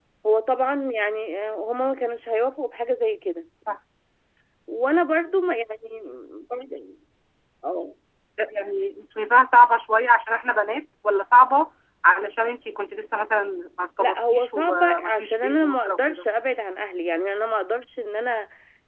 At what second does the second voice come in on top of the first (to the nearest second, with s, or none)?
14 s